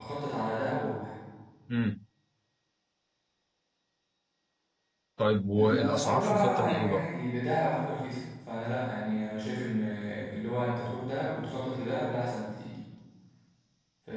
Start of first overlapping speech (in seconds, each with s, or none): 5.6 s